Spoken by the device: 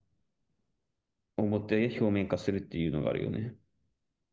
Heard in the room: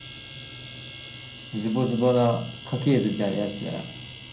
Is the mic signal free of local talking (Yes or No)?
No